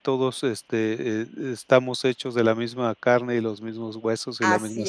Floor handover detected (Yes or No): Yes